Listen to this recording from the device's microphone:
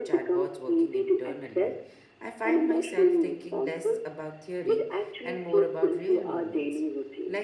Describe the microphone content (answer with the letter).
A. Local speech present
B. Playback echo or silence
A